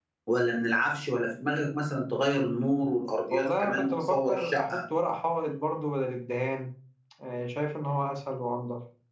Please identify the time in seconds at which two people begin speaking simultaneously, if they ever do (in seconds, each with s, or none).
3.3 s